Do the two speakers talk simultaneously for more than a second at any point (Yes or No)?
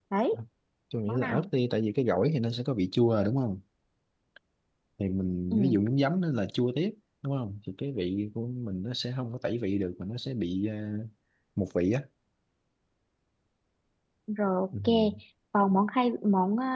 No